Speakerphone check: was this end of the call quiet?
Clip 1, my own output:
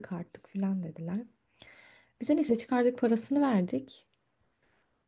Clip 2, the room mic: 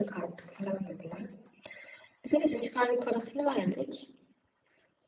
Yes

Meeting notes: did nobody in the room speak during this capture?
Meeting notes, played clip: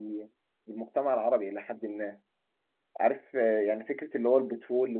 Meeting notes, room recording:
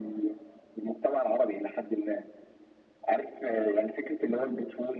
Yes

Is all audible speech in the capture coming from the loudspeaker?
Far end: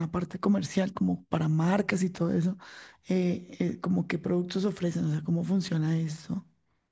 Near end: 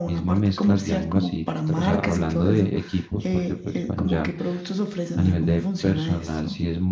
No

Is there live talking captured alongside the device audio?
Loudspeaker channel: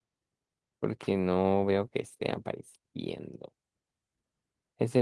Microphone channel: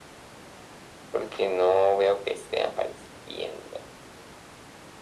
No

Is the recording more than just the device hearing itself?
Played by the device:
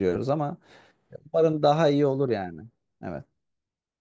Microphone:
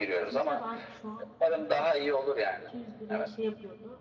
Yes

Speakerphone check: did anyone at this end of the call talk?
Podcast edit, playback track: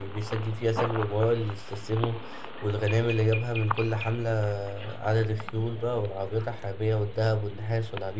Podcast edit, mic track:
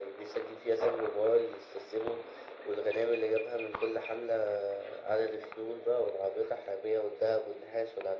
No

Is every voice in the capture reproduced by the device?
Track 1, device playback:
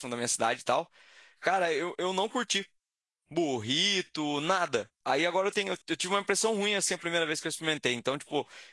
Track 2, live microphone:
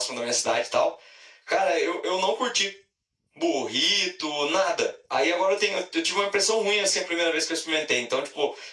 Yes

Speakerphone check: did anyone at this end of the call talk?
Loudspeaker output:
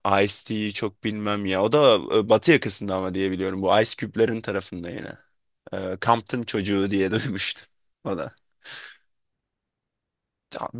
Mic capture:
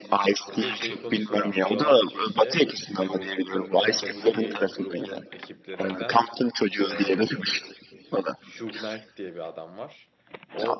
Yes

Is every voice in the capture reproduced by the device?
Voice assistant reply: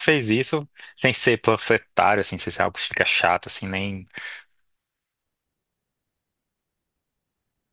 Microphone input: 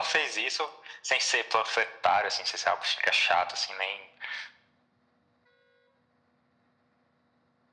Yes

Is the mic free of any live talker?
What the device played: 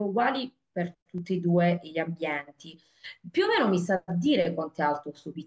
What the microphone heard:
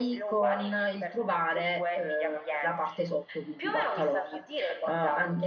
No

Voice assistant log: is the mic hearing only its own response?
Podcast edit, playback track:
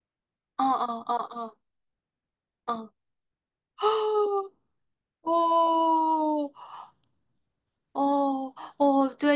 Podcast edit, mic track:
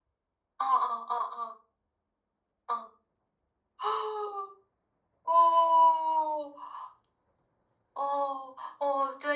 Yes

